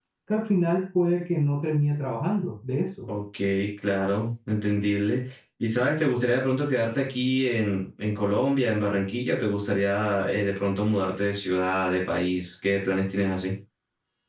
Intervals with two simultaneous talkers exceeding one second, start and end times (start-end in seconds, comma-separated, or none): none